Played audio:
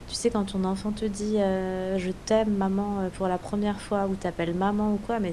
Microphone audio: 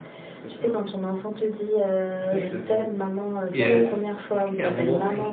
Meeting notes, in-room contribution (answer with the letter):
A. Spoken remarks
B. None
A